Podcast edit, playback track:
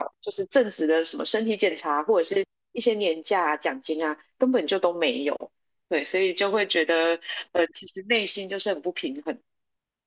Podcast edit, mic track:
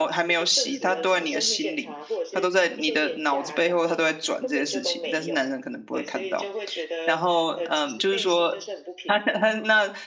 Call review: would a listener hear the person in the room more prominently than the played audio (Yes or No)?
Yes